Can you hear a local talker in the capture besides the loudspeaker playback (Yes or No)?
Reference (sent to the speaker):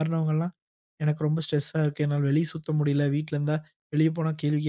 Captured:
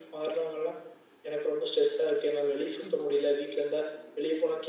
Yes